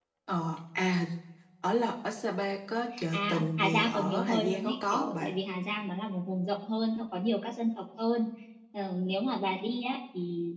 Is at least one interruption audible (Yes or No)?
Yes